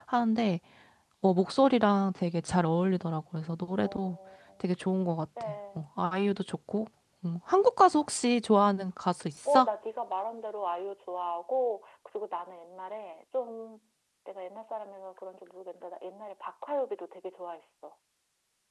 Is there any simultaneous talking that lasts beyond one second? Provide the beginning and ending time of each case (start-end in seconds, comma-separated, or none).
none